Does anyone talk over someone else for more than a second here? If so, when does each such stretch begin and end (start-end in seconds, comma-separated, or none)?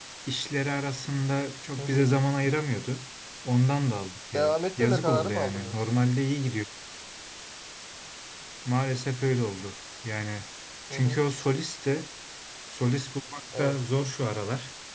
4.3-5.8